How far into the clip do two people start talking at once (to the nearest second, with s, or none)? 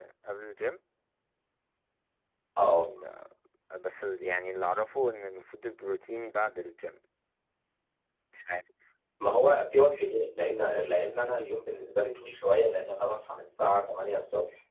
none